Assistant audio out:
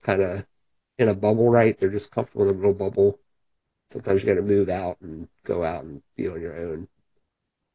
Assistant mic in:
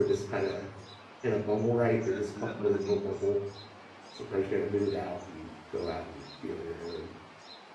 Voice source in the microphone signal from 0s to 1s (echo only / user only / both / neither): echo only